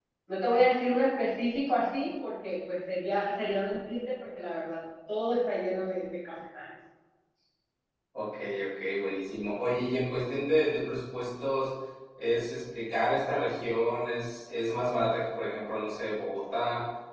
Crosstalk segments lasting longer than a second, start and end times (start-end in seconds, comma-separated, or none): none